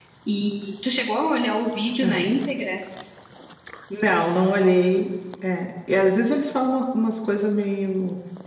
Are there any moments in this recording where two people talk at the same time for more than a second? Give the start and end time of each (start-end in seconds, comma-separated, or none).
none